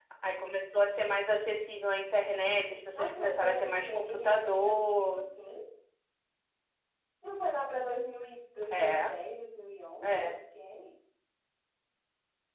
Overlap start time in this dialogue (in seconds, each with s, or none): 3.0 s